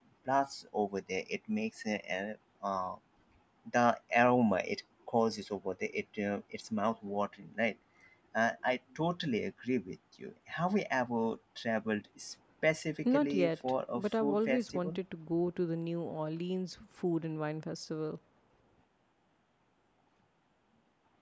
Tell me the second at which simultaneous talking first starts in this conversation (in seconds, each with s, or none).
13.1 s